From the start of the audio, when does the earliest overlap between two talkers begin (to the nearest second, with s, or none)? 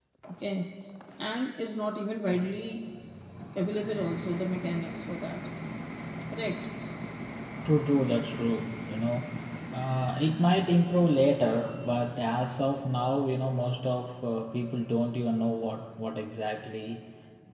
none